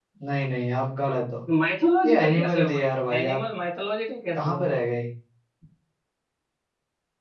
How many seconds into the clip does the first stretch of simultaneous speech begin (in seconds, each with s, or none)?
2.0 s